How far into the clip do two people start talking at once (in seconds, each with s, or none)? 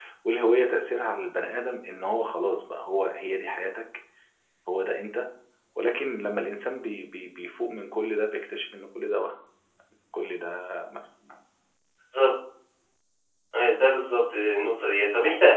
none